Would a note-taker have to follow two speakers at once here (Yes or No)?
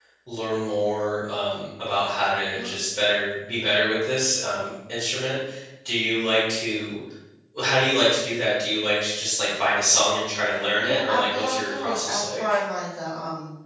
Yes